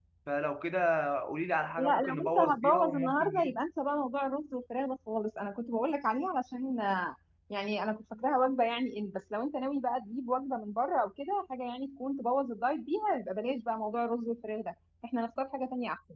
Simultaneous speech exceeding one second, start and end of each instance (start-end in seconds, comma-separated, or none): 1.8-3.5